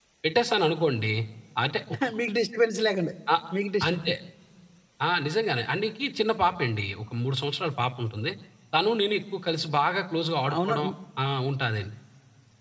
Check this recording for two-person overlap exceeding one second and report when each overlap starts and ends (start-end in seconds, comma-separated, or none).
none